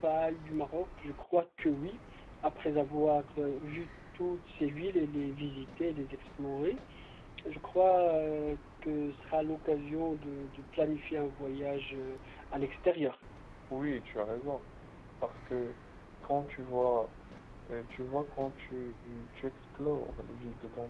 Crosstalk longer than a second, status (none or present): none